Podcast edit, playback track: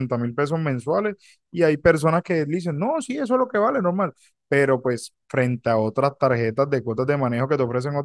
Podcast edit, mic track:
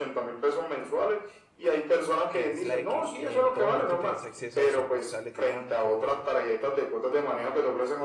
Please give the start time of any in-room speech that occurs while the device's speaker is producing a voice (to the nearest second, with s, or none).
2 s